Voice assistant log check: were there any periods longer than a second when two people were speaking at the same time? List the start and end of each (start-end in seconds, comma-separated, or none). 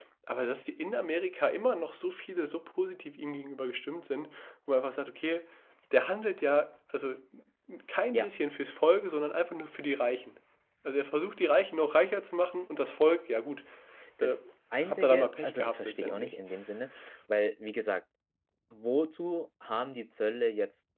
14.8-16.3